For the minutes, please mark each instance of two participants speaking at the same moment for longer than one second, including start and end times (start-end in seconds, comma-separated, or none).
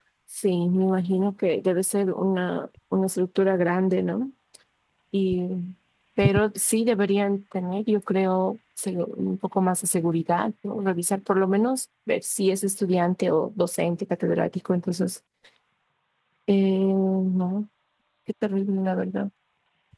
none